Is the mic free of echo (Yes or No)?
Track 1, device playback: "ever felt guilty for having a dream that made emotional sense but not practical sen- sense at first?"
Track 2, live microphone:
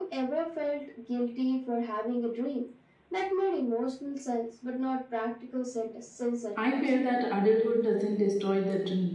No